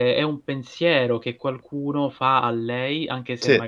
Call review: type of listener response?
listening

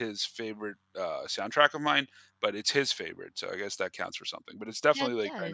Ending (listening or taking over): listening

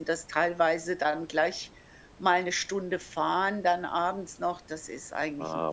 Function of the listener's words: taking over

